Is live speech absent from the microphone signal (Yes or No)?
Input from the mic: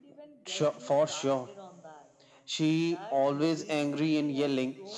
Yes